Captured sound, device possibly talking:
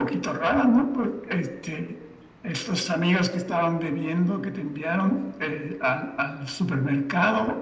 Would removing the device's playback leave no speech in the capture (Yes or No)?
Yes